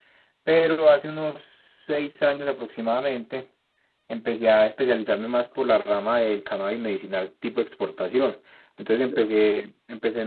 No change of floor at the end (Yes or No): Yes